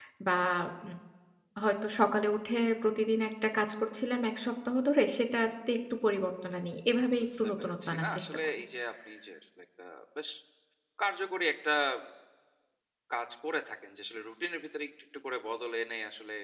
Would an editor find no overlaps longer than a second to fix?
No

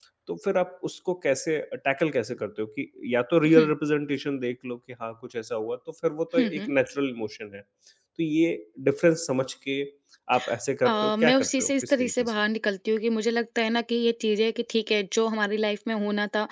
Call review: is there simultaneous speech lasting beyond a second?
Yes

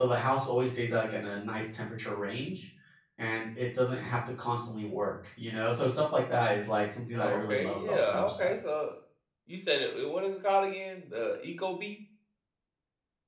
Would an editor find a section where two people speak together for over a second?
Yes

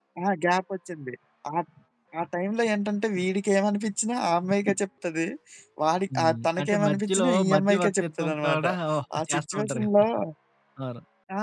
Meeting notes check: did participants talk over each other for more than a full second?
Yes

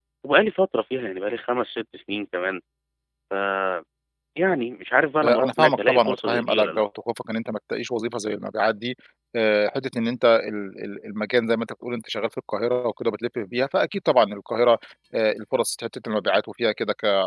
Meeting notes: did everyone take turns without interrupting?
No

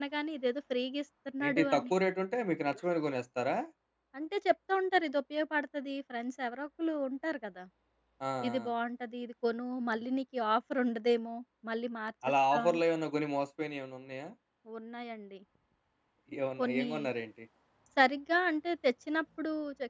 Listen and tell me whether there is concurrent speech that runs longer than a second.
No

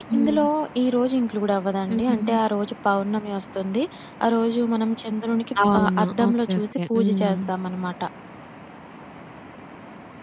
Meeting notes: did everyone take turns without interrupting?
No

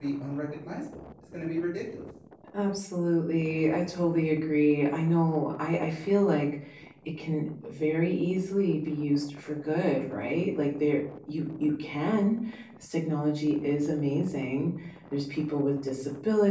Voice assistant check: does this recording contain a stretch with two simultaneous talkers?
No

